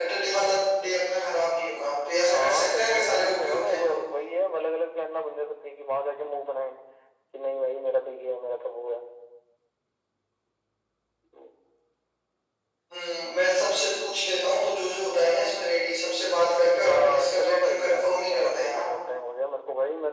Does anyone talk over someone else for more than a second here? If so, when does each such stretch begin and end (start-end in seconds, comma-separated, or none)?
2.3-3.9, 16.8-18.8